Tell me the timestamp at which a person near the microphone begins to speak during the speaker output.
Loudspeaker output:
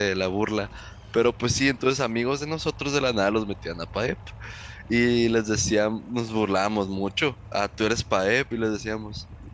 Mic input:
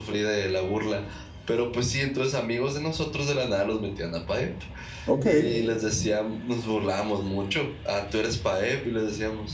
5 s

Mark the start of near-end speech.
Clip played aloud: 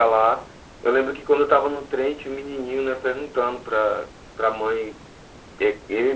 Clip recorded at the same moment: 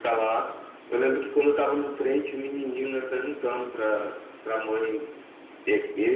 none

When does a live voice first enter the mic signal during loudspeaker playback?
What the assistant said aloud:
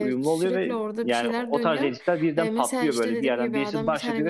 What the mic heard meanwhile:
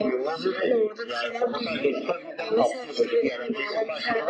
none

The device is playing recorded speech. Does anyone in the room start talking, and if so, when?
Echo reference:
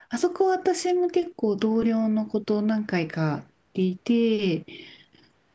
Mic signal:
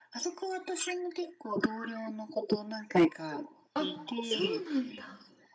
4 s

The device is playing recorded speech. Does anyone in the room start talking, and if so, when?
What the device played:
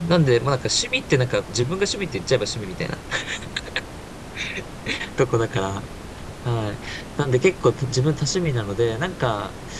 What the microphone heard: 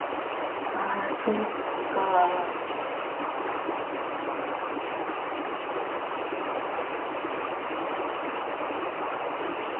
1 s

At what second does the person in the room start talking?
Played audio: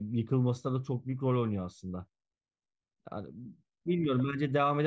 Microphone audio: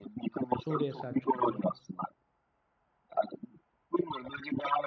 1 s

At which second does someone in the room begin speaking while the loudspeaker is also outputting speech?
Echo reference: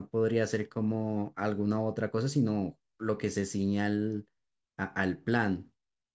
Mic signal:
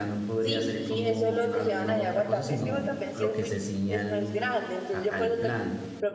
0 s

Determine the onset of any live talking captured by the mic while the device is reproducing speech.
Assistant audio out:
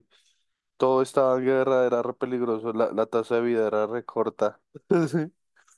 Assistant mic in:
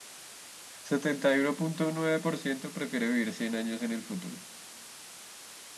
1 s

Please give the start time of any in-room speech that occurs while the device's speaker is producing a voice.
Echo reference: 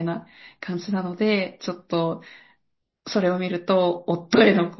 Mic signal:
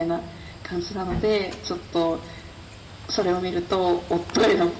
none

